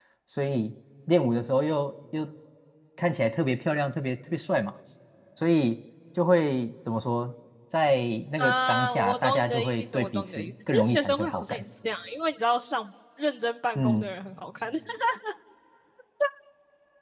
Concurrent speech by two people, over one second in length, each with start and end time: 8.4-11.6

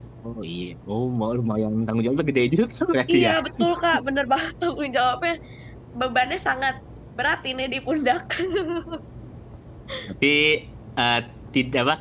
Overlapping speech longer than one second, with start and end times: none

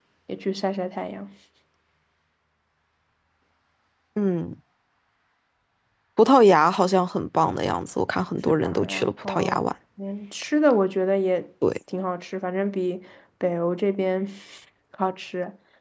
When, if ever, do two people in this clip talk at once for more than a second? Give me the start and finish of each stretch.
8.5-9.7

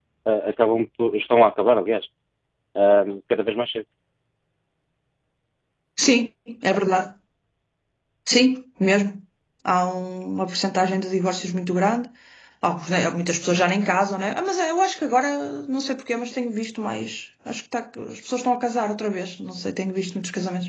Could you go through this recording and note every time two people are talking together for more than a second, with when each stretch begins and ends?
none

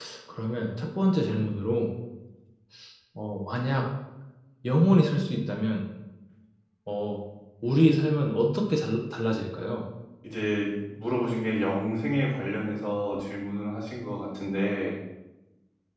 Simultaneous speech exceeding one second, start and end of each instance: none

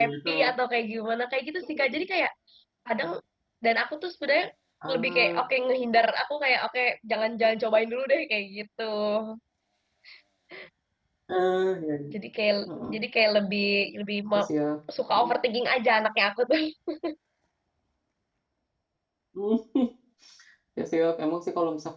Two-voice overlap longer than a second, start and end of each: none

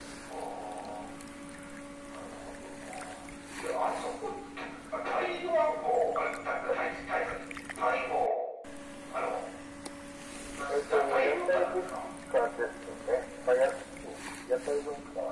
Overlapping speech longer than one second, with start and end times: 10.7-11.9

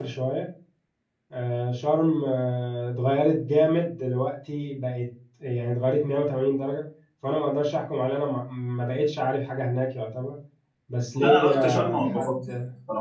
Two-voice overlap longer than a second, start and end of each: 11.2-12.5

